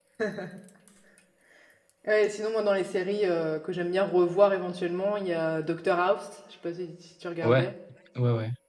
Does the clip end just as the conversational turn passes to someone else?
Yes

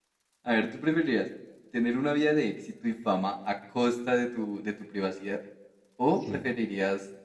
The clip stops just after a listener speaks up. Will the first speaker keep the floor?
Yes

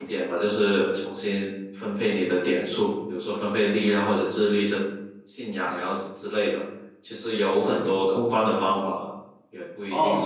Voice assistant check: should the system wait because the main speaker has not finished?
No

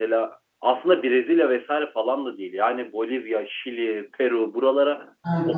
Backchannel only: No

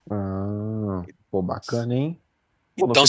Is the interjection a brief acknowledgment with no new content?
No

